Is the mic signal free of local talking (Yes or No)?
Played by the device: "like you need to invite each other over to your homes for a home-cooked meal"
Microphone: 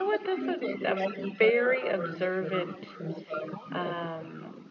No